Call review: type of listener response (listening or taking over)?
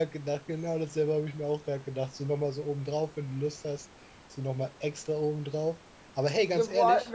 taking over